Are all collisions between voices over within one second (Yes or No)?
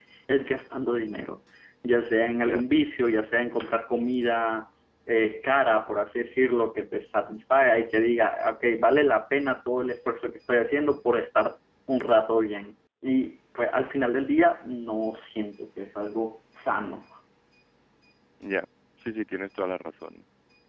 Yes